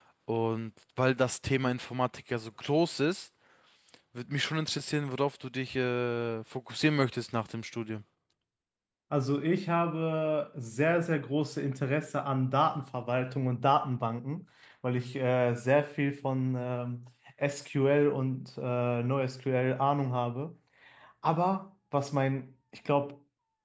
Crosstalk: none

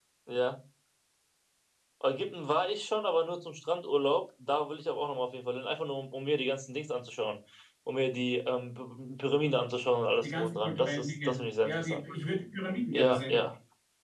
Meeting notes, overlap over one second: present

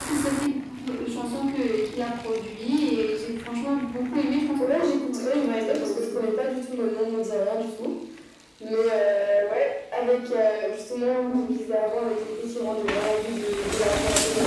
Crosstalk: present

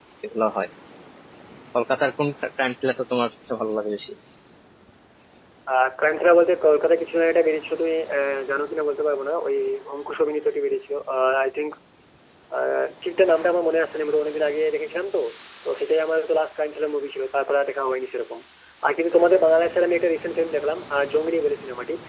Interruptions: none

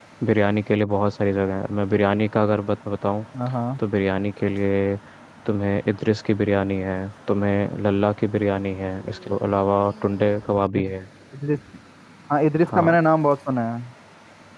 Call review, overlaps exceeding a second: none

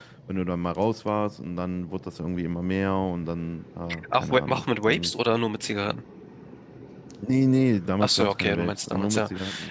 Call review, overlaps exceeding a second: present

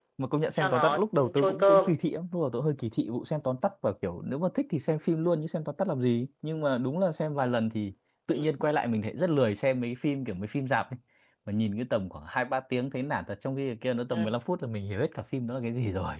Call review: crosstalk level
present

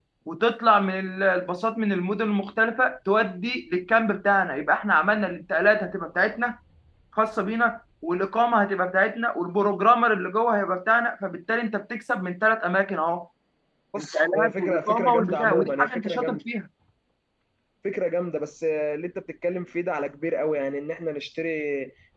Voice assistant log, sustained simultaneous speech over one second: present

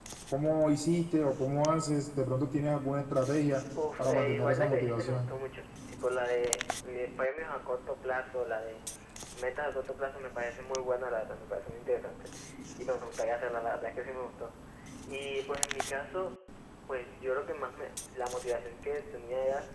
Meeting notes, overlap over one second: present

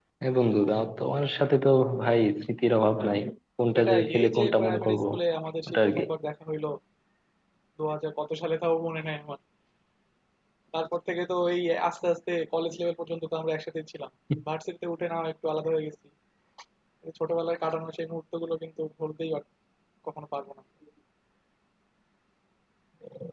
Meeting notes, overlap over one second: present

